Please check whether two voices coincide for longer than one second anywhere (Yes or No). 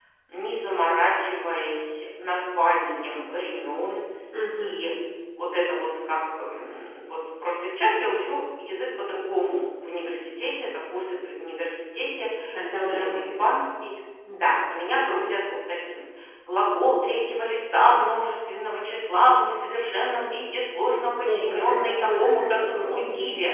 Yes